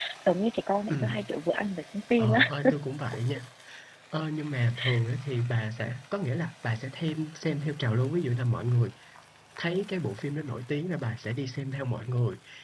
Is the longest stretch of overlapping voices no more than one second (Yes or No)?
Yes